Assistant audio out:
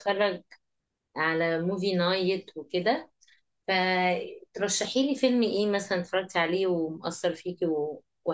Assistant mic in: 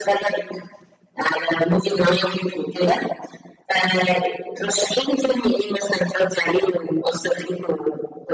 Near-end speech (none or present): none